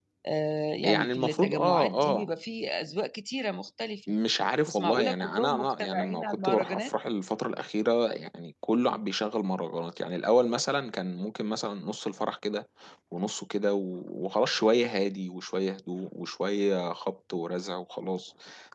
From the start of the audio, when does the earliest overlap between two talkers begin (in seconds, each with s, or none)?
0.8 s